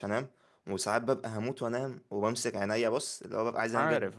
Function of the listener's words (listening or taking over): listening